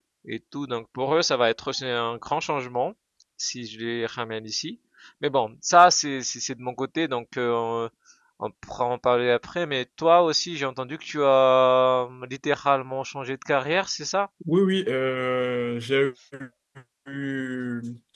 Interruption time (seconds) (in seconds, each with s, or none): none